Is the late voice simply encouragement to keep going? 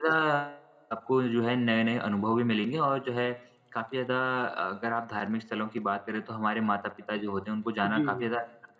Yes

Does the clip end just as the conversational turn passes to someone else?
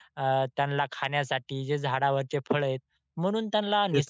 No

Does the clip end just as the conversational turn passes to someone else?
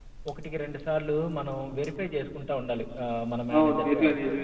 Yes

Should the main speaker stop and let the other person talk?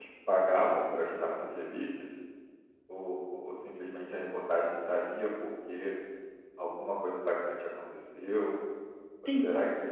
No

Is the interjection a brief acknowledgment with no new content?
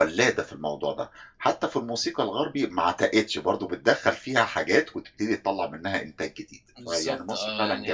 No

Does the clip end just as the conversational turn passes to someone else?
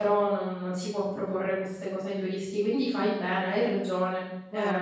Yes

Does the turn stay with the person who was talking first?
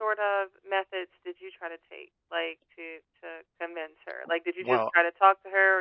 Yes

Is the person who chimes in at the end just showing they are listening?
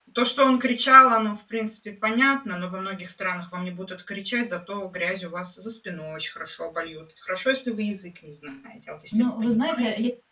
No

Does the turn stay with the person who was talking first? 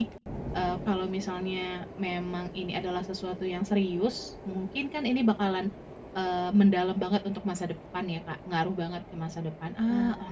No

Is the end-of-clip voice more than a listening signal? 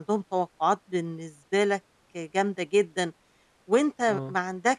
No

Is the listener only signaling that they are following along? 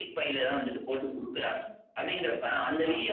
Yes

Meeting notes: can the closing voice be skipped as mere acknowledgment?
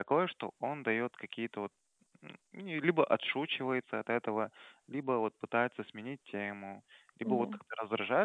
Yes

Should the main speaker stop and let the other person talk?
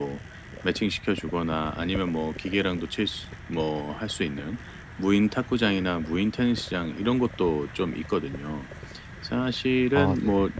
No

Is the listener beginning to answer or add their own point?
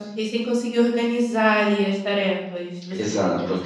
Yes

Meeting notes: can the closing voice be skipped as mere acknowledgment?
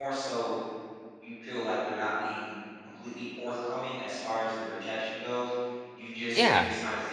Yes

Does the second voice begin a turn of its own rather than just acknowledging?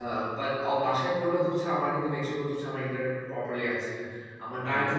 No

